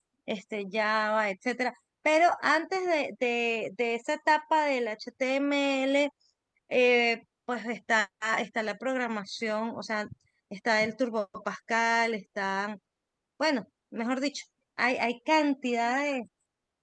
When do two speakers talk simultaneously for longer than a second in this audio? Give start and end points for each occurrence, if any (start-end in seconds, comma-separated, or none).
none